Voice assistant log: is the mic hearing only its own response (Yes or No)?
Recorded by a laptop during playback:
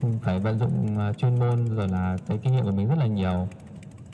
Yes